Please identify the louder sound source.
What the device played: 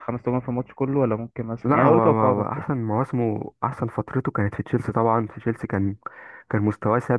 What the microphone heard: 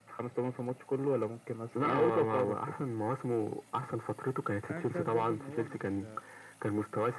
echo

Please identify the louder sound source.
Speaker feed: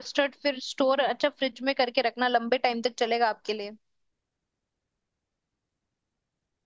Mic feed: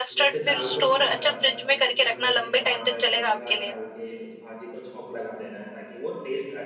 echo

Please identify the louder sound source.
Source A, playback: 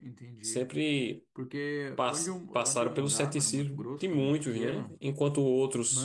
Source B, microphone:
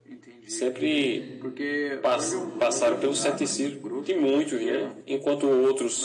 echo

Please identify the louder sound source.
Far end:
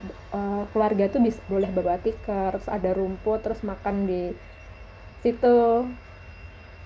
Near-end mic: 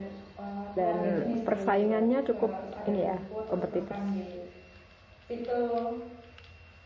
user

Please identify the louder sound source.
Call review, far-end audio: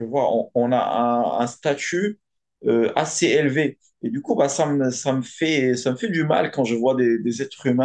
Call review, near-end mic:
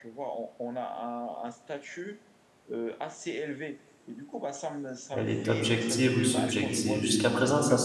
user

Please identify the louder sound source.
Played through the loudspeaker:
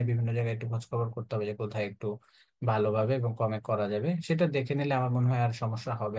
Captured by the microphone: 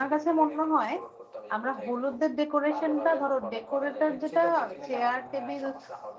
user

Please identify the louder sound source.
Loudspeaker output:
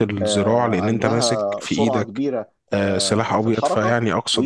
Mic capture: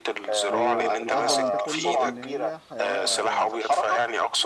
echo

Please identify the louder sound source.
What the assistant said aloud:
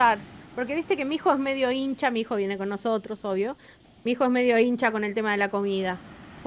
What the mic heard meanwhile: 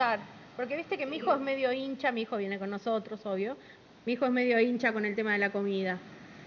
echo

